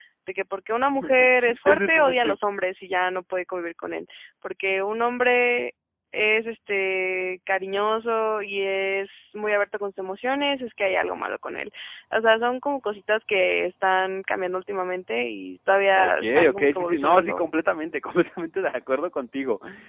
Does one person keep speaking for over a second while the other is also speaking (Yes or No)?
Yes